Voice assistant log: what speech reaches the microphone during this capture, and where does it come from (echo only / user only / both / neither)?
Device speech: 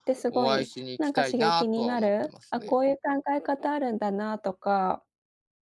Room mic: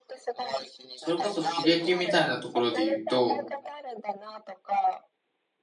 both